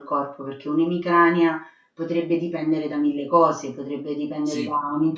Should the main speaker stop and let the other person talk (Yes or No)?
No